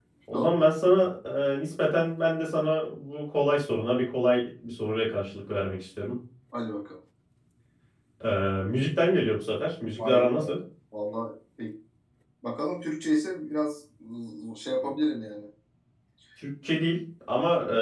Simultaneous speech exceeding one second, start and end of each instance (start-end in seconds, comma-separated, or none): none